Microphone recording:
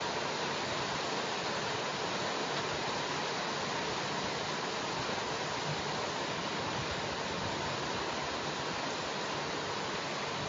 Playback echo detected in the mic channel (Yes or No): No